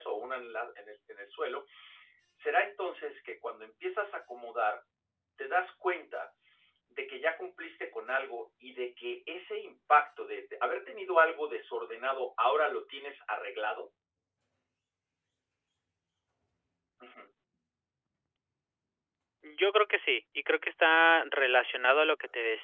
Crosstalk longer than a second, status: none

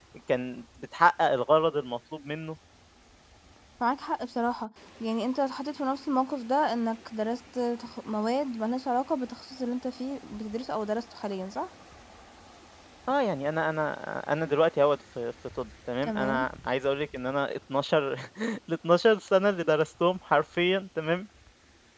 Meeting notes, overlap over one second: none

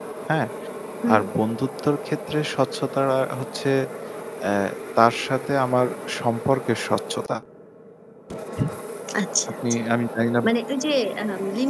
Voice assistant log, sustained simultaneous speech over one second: none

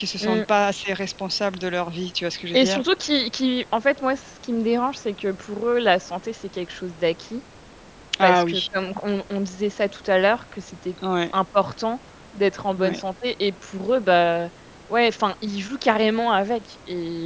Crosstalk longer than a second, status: none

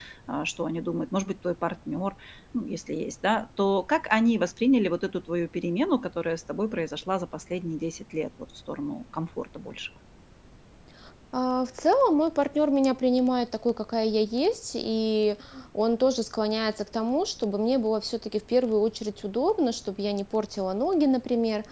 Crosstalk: none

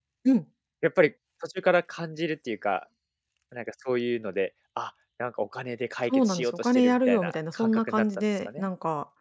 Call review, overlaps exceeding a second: present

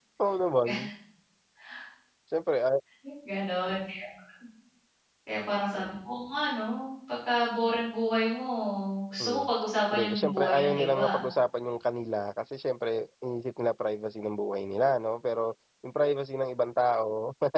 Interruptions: present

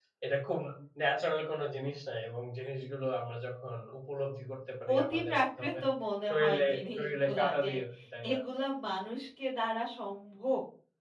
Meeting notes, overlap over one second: present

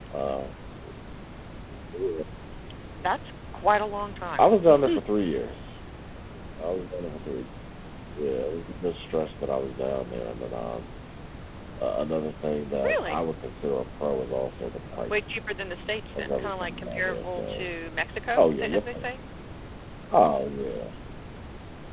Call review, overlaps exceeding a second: present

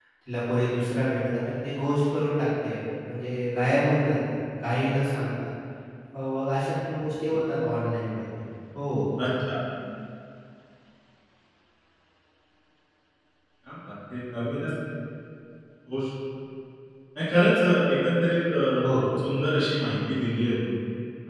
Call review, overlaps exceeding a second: none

